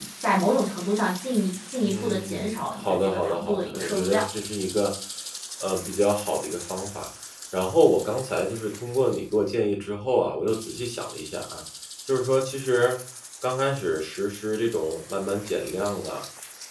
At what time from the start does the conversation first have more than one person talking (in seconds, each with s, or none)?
1.8 s